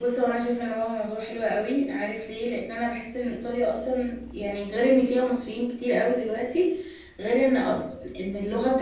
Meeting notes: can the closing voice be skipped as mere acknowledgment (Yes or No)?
Yes